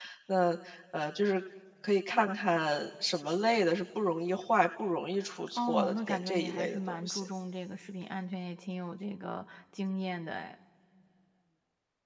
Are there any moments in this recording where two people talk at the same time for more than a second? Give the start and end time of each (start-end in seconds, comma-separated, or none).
5.5-7.3